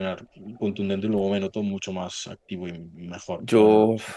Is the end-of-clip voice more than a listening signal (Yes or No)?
Yes